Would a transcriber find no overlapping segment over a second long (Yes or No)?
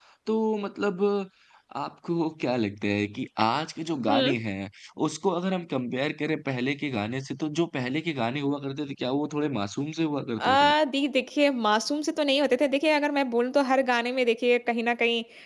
Yes